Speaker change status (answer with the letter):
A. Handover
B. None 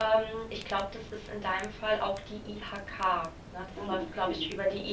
B